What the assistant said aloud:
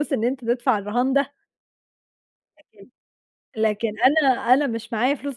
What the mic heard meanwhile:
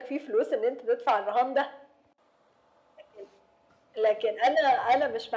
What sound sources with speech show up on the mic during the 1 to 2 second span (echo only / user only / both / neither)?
echo only